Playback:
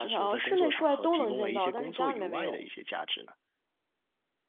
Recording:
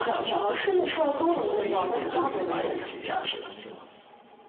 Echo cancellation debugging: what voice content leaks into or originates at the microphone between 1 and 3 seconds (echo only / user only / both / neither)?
both